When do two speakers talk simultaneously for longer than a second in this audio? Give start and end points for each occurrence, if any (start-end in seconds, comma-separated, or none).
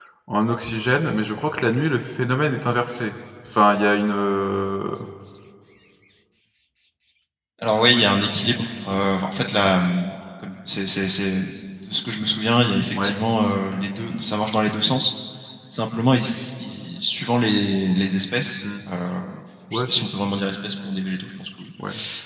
none